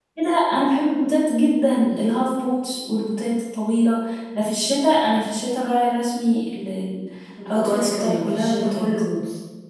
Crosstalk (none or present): present